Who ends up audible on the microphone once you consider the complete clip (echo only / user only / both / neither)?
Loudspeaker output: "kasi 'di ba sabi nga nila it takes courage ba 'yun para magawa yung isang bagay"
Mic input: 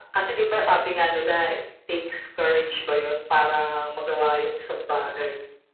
echo only